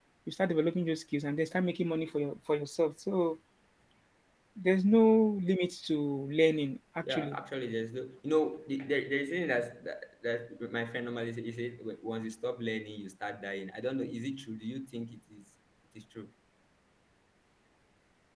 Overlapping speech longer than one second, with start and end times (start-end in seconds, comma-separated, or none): none